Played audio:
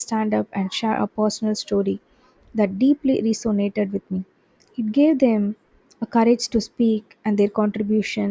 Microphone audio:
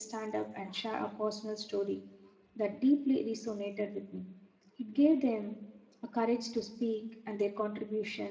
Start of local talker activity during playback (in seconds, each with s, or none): none